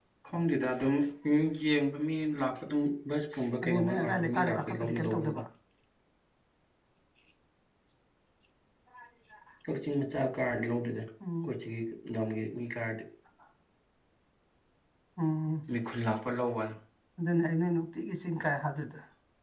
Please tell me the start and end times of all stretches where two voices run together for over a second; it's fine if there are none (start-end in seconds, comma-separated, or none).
3.7-5.4